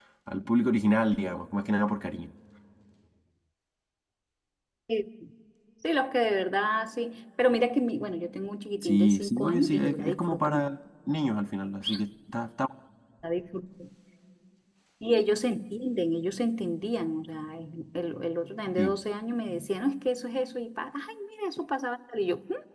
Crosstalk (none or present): present